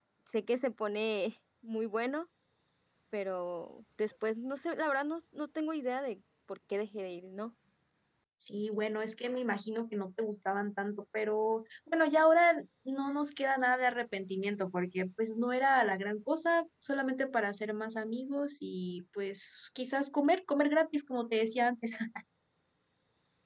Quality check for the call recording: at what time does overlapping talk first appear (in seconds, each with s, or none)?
none